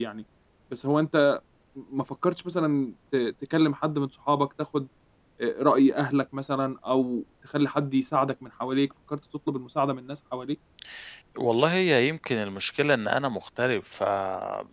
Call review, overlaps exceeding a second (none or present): none